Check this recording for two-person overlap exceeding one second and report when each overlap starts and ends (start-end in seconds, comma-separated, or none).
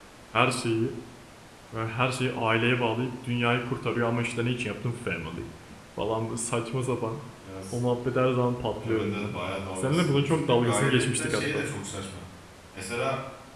9.8-11.7